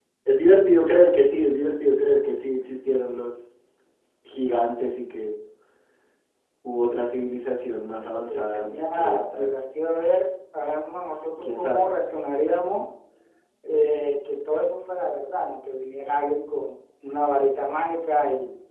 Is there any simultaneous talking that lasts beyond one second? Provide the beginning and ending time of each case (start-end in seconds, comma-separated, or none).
8.0-9.5